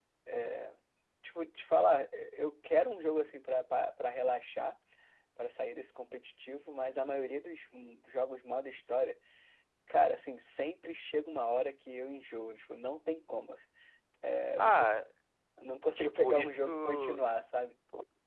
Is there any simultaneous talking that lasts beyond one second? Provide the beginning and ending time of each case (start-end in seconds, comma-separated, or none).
16.0-17.2